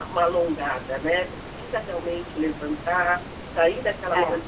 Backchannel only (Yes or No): Yes